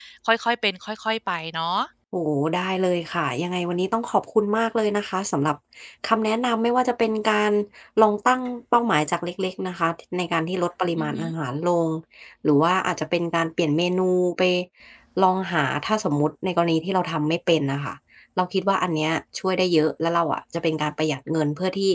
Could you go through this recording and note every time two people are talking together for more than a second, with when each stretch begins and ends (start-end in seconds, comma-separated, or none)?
none